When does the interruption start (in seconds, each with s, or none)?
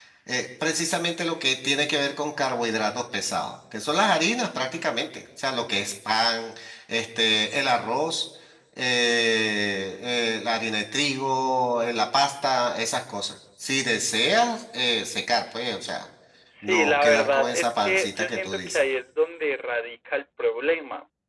16.6 s